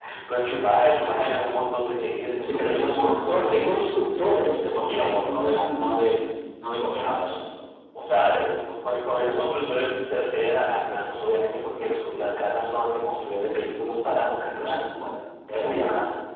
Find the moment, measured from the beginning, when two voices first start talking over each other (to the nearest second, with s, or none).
2 s